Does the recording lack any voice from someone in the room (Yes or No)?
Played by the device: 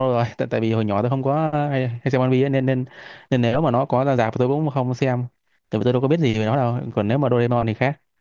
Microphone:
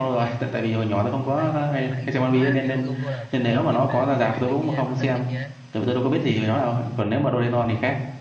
No